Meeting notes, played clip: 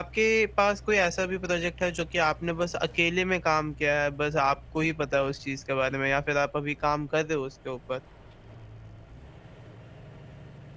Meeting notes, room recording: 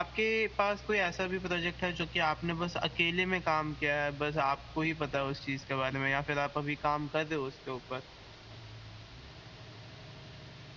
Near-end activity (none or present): none